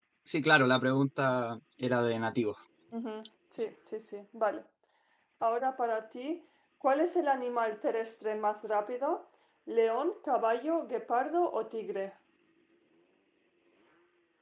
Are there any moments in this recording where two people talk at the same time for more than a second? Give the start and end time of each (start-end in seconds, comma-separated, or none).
none